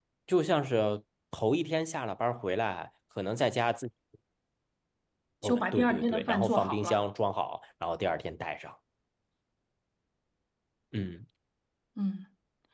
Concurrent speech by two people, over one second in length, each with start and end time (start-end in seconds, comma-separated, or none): 5.4-7.0